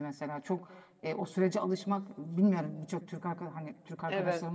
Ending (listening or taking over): listening